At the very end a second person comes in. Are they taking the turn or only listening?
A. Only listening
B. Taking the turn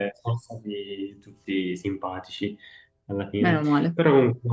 A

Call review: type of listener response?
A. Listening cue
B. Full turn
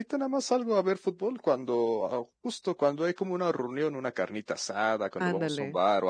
A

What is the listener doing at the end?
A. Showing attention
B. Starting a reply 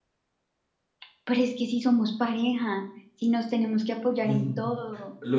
B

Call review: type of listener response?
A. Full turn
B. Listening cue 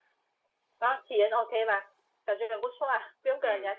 A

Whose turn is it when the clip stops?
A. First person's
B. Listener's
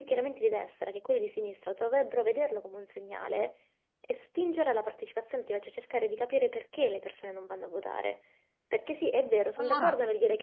A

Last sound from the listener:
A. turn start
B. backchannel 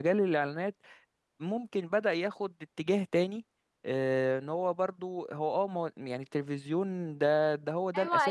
A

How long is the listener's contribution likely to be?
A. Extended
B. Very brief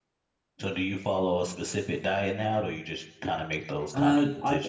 A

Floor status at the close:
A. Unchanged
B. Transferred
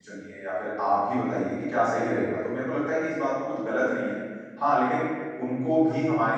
A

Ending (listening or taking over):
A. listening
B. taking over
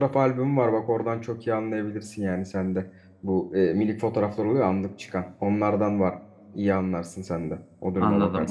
B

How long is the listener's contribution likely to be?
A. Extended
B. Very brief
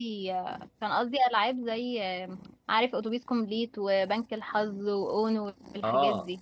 A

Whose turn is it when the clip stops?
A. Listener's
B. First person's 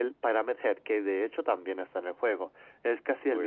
B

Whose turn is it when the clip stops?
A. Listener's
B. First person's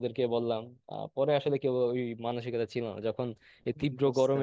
B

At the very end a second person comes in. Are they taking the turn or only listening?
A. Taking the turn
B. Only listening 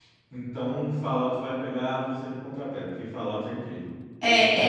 A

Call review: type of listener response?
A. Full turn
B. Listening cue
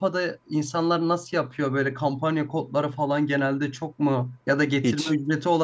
B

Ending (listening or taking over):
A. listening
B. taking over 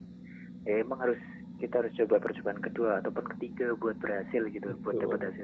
B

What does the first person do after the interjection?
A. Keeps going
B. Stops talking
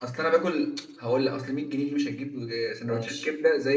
A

